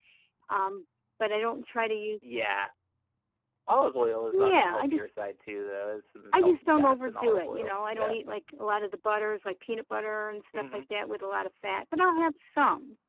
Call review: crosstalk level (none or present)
present